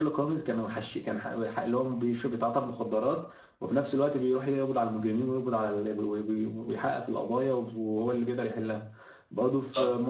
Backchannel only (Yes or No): Yes